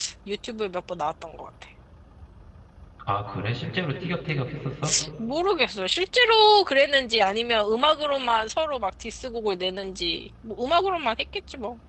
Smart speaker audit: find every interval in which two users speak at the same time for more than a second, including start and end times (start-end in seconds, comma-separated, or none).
none